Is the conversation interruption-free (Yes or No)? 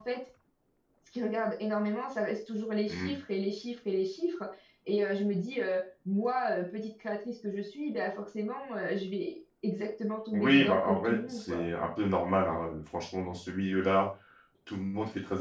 No